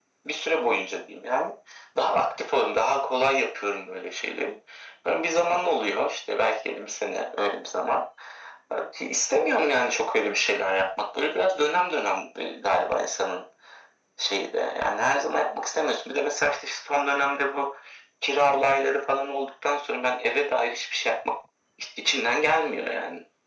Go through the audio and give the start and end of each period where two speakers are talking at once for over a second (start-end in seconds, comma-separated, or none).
none